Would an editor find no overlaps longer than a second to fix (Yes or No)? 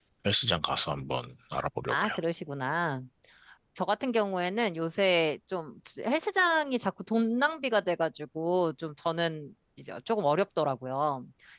Yes